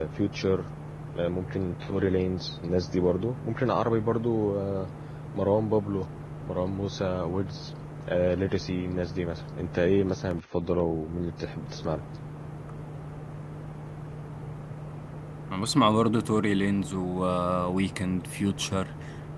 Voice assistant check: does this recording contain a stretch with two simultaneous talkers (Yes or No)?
No